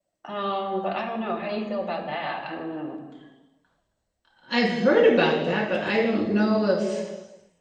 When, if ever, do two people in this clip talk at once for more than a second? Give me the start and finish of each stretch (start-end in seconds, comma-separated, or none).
none